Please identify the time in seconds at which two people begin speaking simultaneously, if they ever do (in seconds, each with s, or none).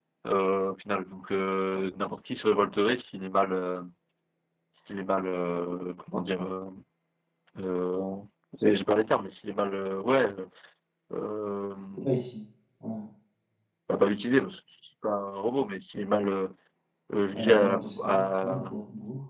17.3 s